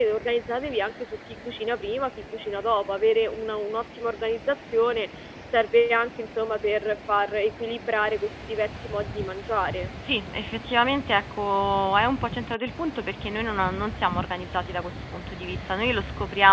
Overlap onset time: none

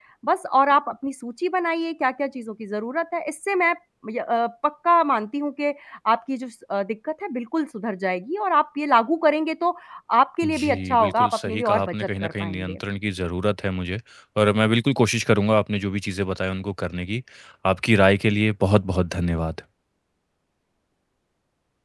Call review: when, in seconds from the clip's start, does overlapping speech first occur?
10 s

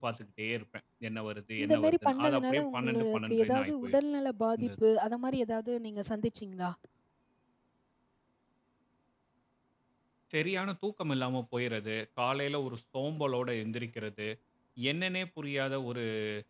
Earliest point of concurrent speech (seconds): 2 s

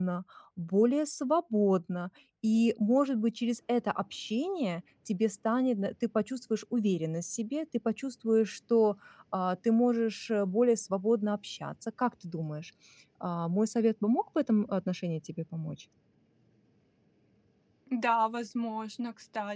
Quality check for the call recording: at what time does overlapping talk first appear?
none

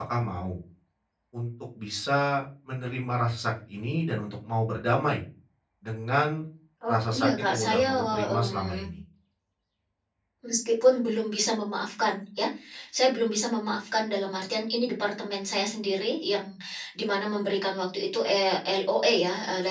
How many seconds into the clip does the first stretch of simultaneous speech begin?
7 s

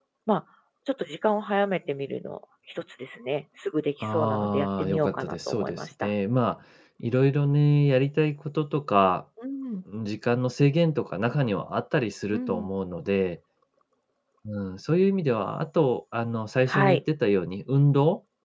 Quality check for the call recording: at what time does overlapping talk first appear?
4 s

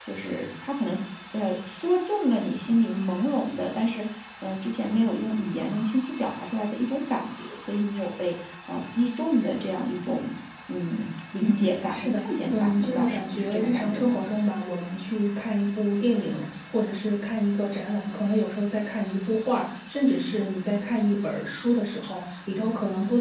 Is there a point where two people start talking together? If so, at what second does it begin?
11 s

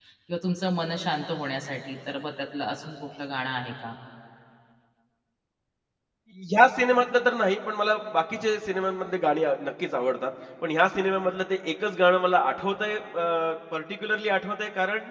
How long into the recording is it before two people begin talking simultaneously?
none

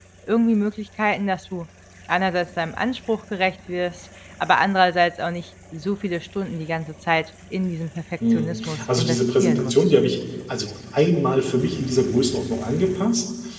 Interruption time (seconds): 8 s

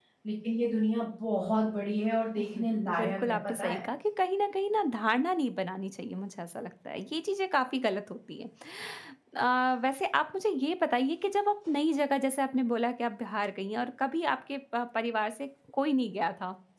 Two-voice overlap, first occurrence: 2 s

